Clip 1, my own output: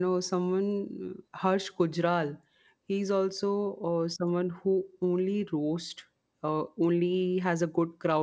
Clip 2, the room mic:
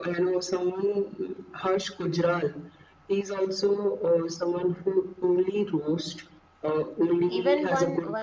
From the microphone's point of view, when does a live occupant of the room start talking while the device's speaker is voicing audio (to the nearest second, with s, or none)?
7 s